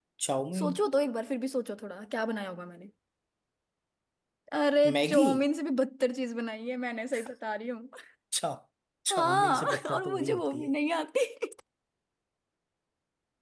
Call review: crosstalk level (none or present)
present